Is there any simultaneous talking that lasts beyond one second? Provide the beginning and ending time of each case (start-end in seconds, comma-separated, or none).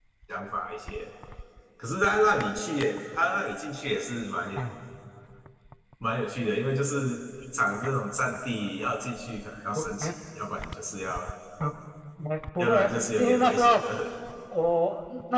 12.6-13.8